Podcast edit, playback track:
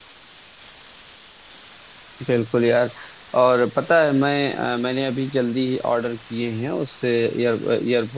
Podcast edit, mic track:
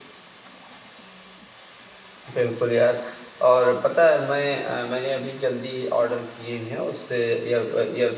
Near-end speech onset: none

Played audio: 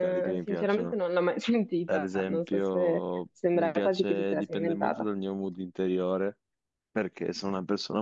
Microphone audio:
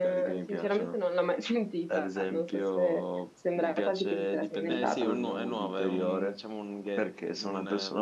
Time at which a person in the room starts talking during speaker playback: 4.6 s

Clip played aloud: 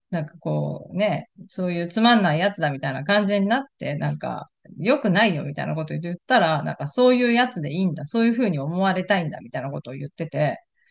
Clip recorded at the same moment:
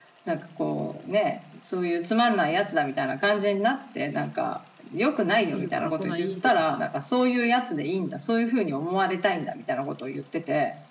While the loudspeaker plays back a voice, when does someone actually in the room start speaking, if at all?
5.5 s

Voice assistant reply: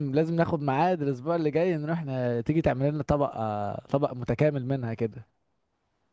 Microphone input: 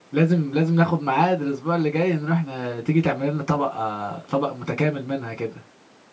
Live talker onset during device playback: none

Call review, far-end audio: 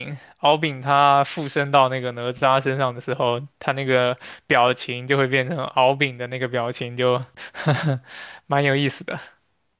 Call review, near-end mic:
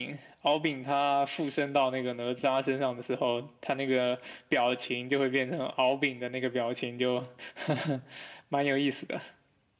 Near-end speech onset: none

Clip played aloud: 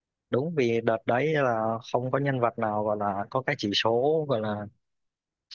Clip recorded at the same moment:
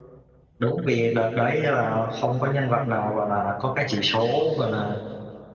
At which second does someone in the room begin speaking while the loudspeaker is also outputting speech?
none

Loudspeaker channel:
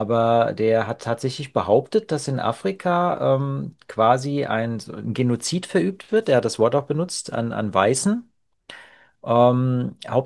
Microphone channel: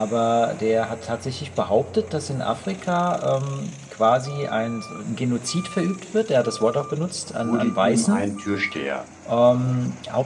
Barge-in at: 7.4 s

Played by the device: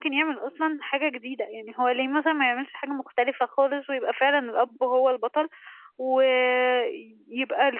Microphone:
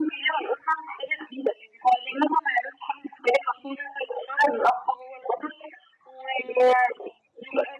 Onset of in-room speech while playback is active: none

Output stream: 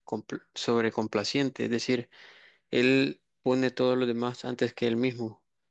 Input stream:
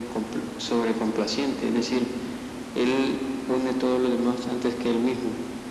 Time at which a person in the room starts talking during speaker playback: none

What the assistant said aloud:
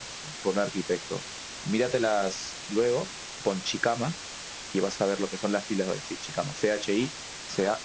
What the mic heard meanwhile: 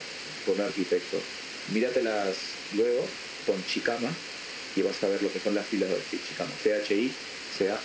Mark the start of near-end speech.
none

